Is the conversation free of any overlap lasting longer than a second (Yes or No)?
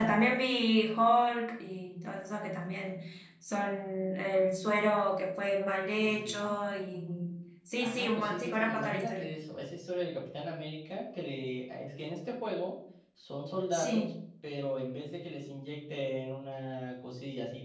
No